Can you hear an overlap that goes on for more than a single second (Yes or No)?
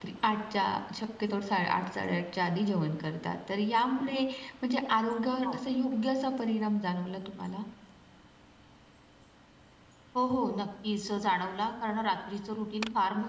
No